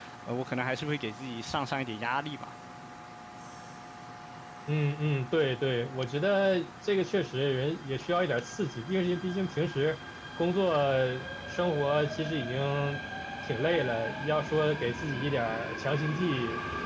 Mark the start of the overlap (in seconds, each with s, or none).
none